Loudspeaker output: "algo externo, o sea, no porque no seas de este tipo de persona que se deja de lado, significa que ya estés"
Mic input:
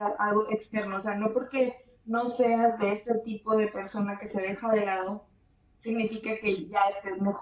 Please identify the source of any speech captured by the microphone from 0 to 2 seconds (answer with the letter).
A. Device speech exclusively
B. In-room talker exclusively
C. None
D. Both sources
A